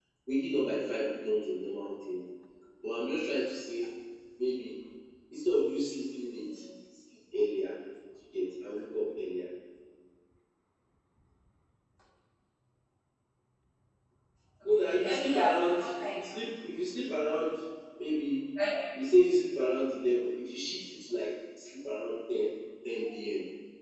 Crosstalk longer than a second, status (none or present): present